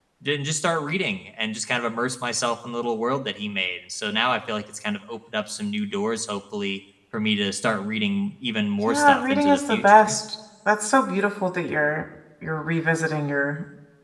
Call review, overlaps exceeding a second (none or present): present